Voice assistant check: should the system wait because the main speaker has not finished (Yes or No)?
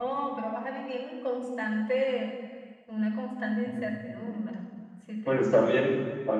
No